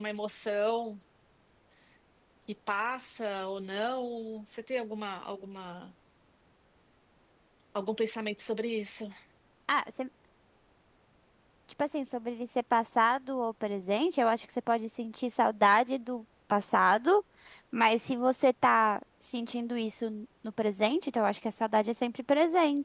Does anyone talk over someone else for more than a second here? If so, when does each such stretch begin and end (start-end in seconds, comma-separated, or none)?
none